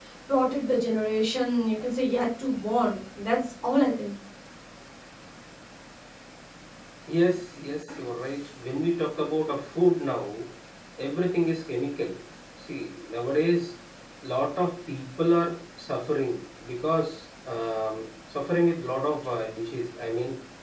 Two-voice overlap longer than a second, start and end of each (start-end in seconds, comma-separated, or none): none